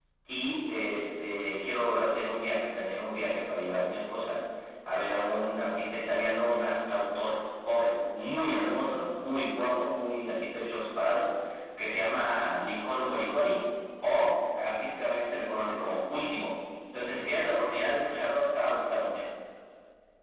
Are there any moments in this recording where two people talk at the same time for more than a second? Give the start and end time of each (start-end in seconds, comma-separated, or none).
none